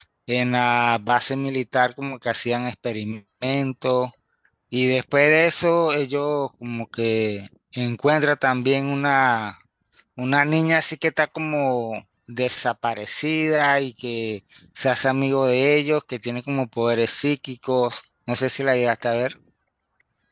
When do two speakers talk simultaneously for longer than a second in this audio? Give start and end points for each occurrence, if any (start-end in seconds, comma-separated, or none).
none